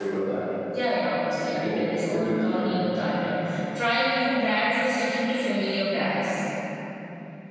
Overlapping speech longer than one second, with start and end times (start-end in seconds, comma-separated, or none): 1.5-2.8